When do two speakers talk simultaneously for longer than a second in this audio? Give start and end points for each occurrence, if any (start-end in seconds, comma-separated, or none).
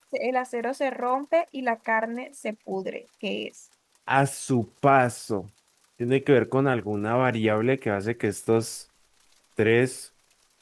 none